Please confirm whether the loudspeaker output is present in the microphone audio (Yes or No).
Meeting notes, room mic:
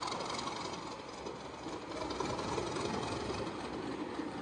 No